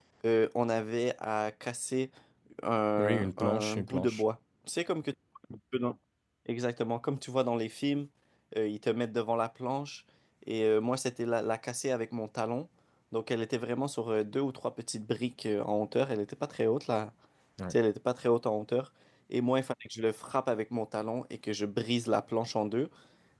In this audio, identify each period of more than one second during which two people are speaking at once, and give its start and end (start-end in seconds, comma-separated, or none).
3.0-4.2